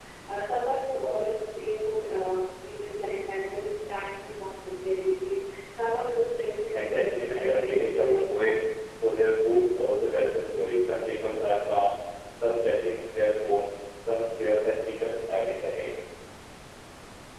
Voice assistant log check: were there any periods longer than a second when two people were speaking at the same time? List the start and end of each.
6.7-8.6

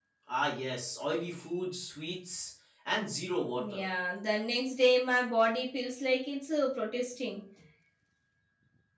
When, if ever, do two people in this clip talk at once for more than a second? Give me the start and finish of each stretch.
none

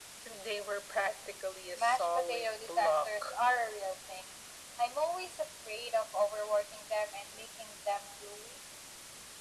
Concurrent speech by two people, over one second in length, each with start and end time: 1.7-3.4

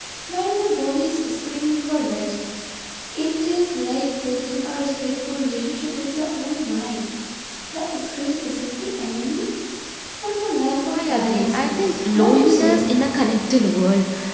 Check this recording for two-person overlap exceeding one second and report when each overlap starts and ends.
10.9-12.8

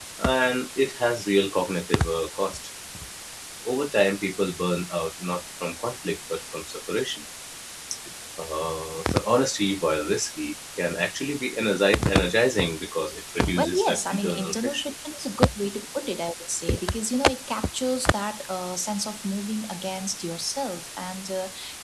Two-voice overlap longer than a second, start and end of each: 13.6-14.8

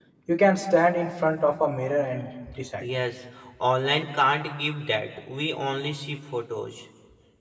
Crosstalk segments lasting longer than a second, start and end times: none

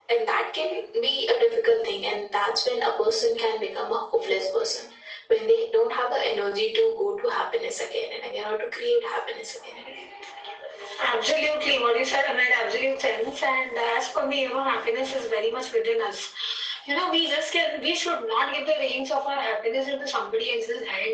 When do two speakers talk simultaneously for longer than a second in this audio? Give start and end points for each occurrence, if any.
none

